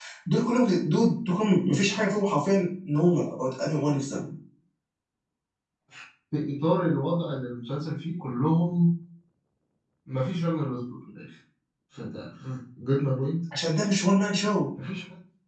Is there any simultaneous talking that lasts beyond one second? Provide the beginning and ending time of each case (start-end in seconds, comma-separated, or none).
none